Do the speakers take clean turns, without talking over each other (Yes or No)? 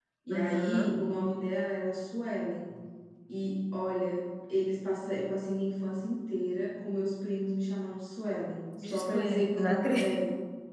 No